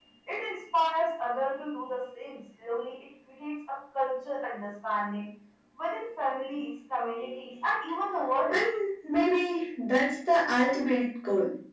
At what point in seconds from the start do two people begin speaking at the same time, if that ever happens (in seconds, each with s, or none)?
none